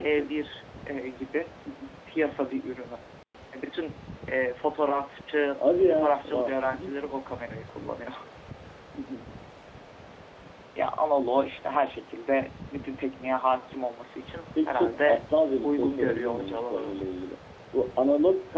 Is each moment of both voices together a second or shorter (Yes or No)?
No